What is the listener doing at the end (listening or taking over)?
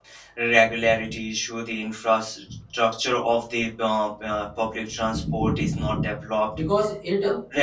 taking over